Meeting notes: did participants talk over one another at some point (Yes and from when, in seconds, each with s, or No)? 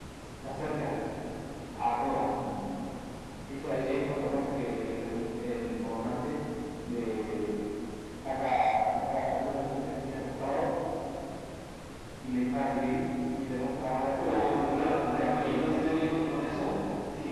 Yes, from 14.1 s